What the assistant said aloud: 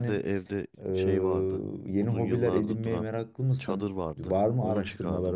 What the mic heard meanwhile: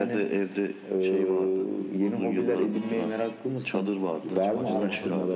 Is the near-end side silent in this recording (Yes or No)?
No